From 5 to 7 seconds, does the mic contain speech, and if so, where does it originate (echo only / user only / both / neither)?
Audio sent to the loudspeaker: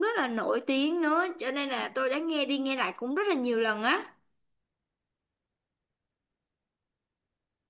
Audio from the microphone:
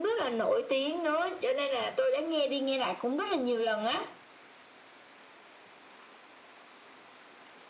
neither